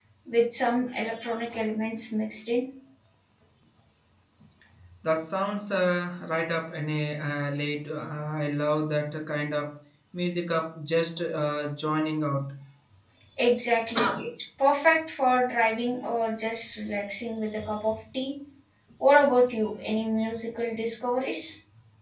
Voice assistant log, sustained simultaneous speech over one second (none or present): none